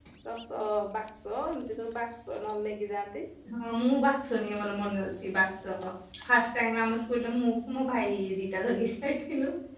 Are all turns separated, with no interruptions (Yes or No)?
Yes